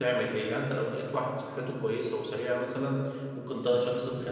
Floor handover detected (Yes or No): No